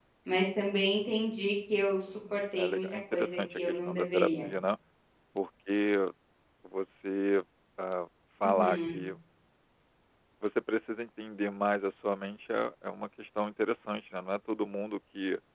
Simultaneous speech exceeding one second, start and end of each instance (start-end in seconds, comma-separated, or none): 2.3-4.5